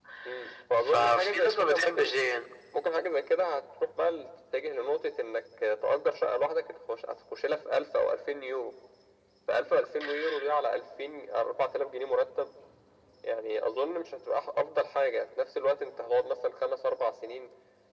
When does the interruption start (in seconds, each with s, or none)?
0.9 s